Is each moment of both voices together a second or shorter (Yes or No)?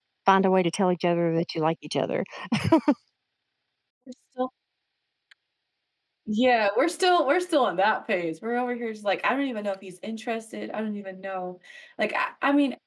Yes